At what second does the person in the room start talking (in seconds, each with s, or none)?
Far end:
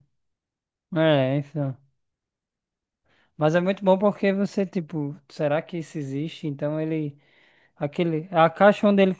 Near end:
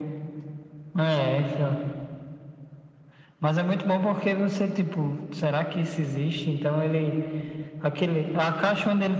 none